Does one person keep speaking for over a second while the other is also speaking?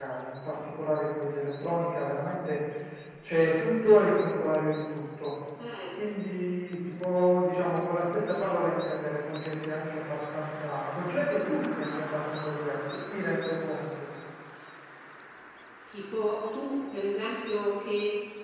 No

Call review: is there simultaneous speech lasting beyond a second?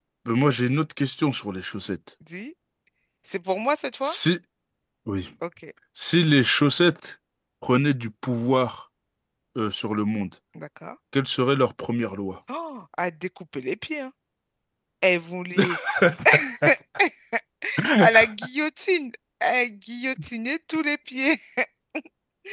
No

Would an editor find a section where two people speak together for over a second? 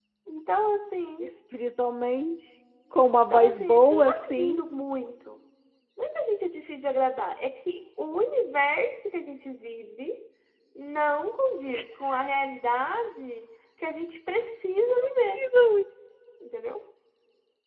Yes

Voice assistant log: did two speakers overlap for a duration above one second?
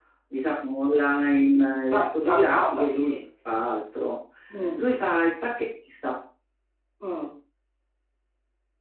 Yes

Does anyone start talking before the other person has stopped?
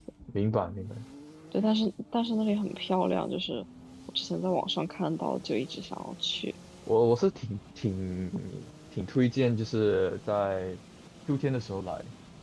No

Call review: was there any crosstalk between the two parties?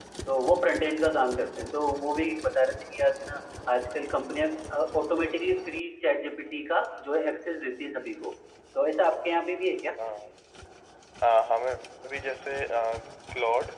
No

